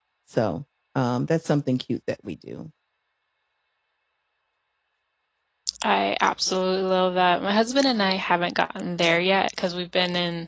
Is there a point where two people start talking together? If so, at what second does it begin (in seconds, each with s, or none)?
none